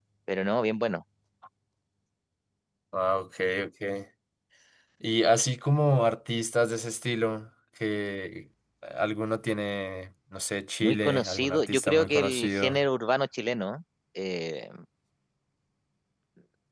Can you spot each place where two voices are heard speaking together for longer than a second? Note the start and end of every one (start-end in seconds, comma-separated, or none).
10.8-12.8